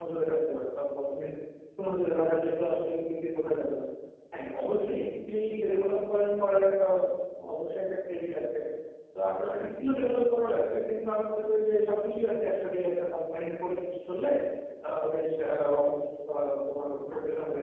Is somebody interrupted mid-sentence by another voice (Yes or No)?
No